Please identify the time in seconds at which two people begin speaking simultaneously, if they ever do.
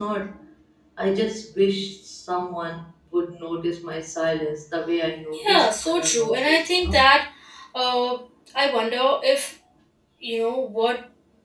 5.3 s

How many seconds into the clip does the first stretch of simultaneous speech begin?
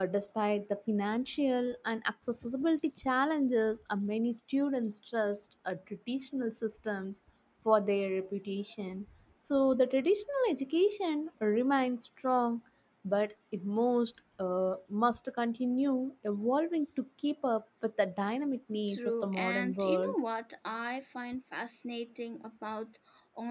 18.9 s

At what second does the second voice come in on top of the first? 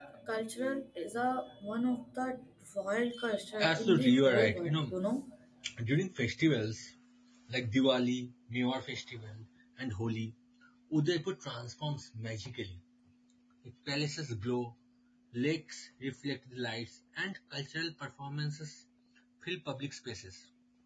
3.6 s

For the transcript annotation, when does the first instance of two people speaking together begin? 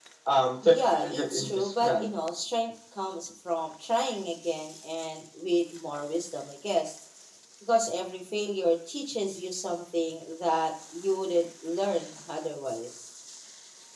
0.6 s

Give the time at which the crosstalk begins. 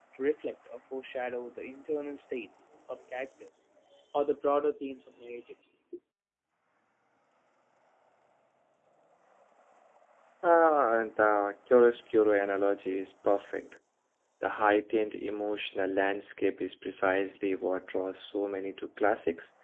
none

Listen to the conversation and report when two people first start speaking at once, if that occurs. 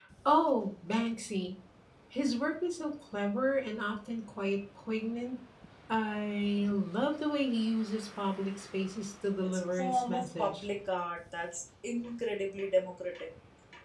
9.4 s

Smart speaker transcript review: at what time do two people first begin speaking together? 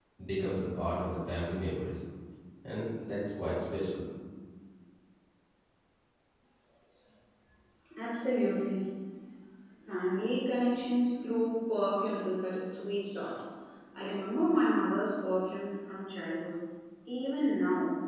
none

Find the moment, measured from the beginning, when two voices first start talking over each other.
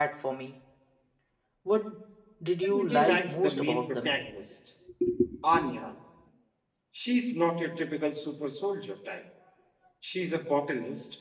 2.6 s

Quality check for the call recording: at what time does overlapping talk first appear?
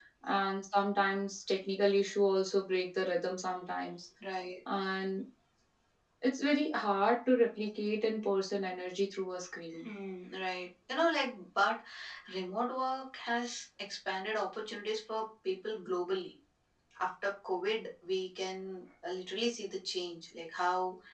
none

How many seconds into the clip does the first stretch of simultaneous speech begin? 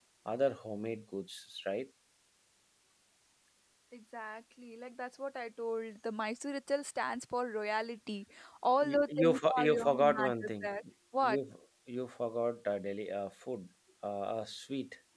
8.9 s

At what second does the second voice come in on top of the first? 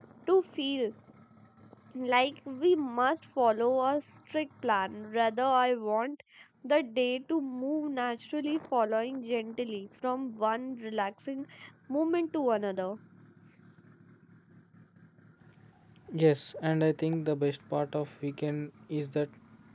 none

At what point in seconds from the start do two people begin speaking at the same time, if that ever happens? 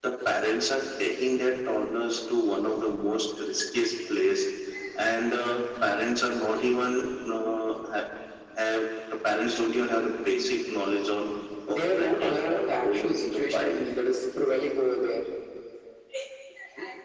11.7 s

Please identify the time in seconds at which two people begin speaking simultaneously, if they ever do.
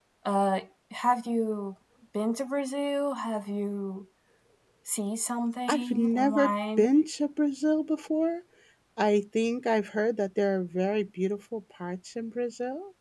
5.7 s

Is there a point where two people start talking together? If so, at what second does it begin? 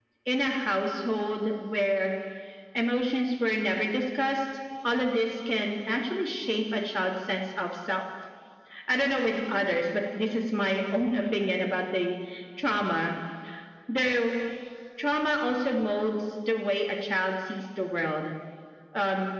none

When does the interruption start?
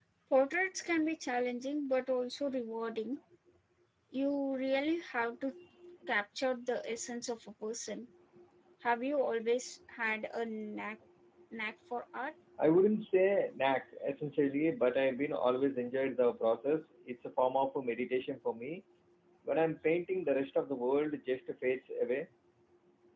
none

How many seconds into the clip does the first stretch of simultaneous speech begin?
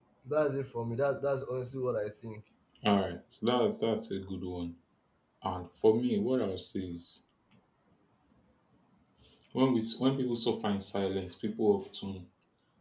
none

